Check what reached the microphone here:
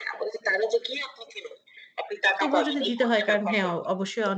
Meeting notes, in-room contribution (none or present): present